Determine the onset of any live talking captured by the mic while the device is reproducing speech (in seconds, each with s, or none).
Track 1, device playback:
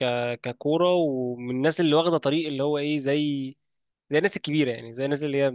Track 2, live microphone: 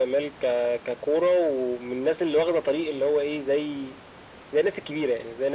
none